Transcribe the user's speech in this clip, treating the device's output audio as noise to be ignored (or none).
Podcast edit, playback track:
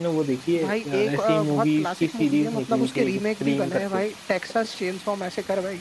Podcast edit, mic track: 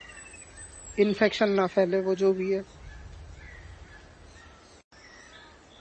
इन्फेक्शन ना फैले वो जो भी है